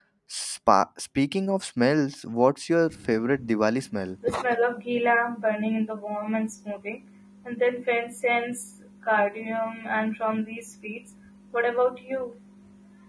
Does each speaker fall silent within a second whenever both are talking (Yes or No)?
Yes